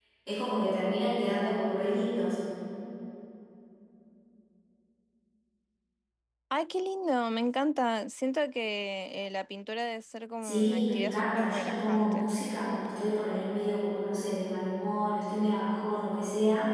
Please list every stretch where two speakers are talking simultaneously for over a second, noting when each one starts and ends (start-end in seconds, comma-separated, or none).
10.4-12.3